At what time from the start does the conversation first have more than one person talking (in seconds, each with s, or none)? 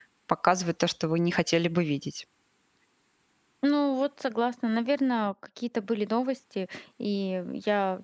none